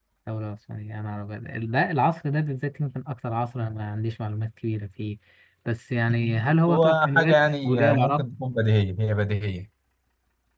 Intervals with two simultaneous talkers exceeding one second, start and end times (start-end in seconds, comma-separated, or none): 6.5-8.2